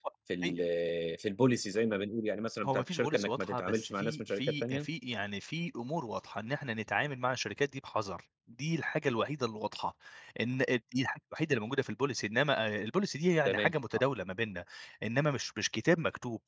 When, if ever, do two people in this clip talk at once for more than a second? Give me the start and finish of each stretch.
2.6-4.9

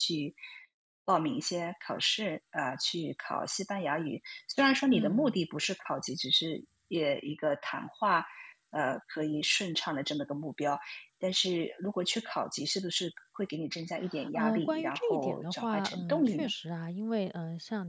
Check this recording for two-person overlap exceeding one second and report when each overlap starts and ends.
14.3-16.5

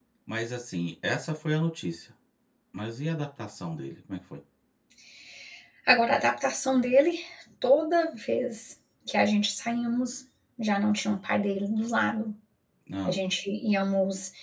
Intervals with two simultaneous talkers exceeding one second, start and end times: none

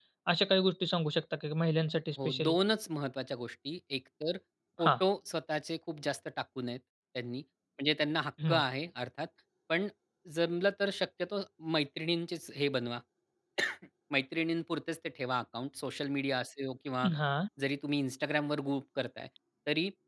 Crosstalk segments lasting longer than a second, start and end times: none

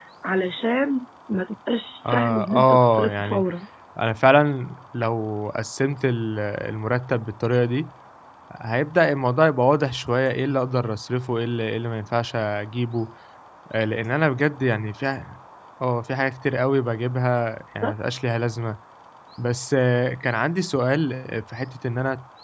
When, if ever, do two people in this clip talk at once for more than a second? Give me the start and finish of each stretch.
2.1-3.4

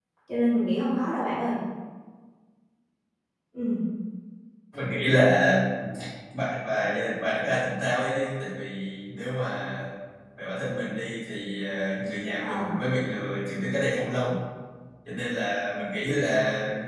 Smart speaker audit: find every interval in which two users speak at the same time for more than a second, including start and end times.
none

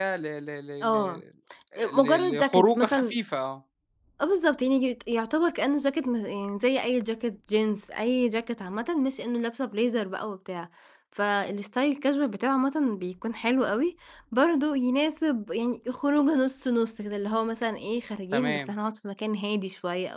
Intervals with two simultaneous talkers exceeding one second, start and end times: 1.9-3.1

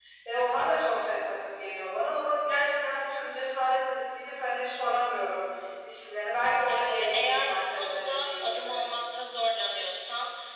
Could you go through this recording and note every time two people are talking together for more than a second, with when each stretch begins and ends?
6.7-8.8

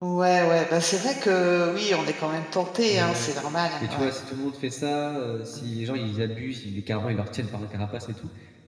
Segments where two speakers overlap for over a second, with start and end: none

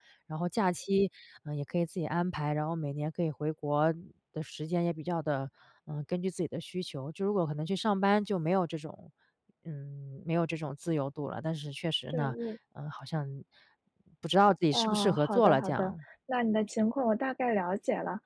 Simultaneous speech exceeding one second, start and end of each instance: 14.7-15.9

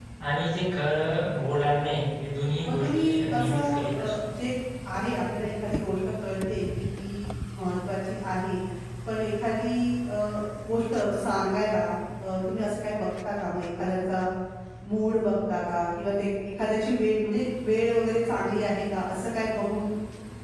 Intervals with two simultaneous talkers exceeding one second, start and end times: 2.6-4.3

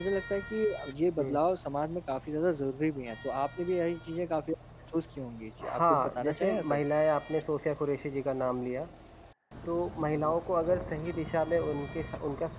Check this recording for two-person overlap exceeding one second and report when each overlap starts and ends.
5.6-6.9

